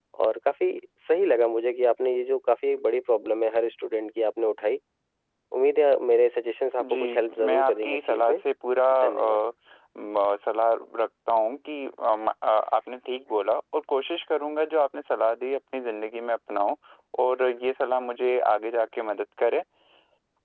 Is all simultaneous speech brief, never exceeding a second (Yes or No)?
No